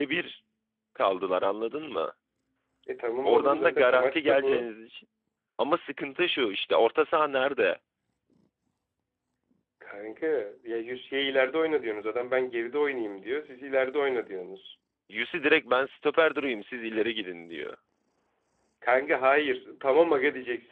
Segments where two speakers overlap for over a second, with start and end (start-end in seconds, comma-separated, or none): 3.2-4.7